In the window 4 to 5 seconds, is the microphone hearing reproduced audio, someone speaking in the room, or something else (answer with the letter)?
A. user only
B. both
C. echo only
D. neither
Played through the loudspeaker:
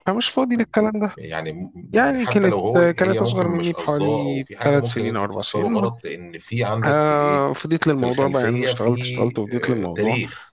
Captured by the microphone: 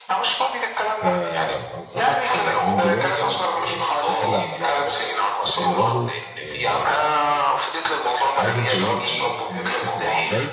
B